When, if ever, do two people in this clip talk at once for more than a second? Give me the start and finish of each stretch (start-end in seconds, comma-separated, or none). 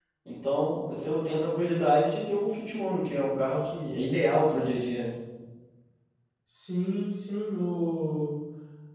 none